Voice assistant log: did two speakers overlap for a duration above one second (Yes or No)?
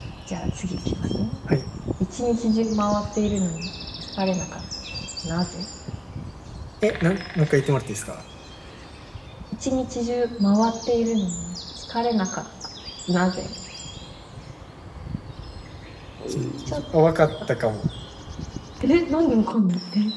No